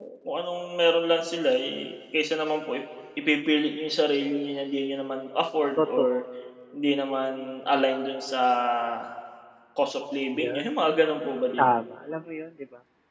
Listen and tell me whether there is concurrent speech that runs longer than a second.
No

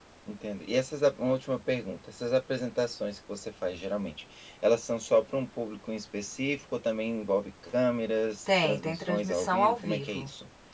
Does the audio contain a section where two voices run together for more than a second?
Yes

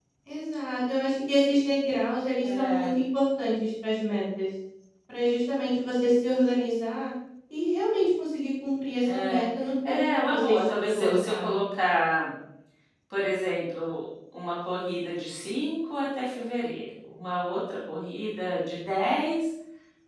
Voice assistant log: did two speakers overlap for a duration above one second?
Yes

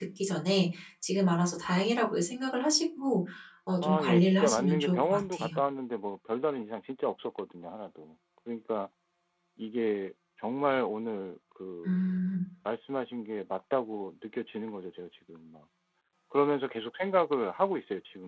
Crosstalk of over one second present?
Yes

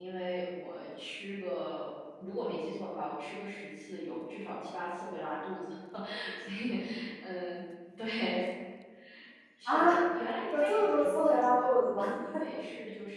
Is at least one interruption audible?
Yes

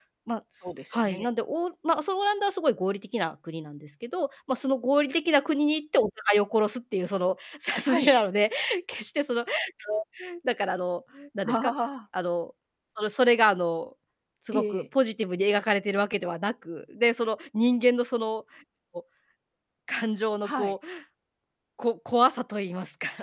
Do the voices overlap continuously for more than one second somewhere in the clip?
No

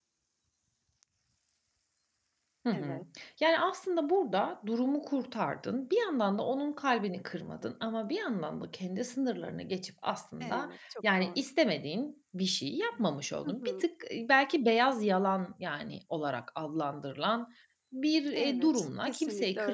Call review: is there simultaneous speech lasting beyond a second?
Yes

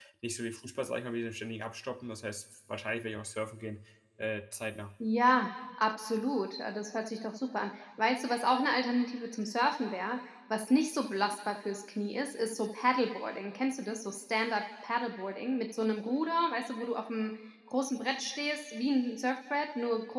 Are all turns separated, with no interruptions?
Yes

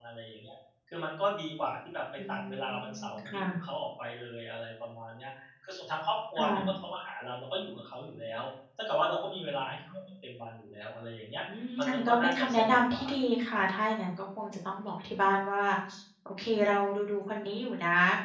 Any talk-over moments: Yes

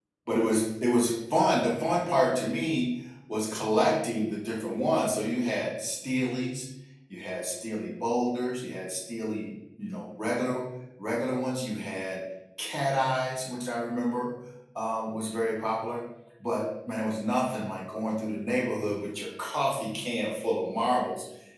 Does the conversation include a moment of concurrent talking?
No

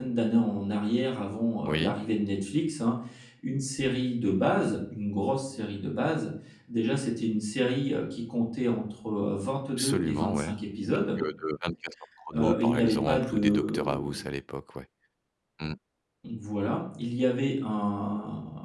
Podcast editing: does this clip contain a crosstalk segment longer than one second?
Yes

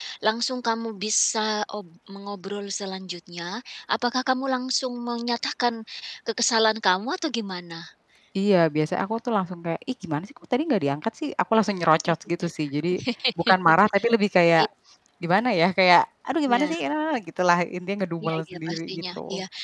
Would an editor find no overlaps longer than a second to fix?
No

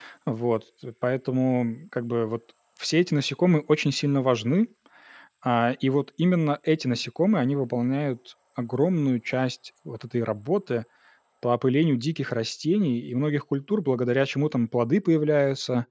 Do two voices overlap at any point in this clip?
No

